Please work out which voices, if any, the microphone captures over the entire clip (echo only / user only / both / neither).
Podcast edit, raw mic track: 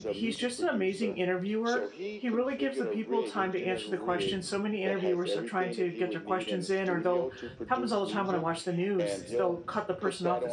both